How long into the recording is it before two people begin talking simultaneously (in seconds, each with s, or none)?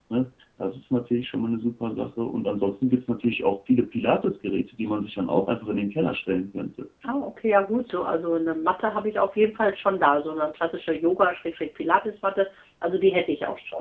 none